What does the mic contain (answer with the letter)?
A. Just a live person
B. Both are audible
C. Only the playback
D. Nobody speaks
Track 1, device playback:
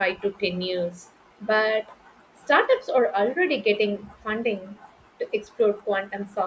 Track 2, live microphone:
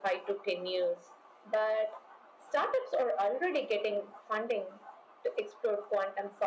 C